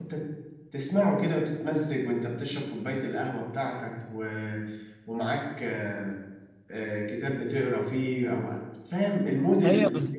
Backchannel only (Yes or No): No